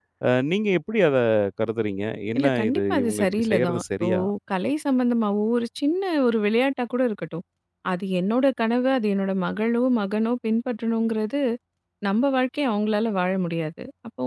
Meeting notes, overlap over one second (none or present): present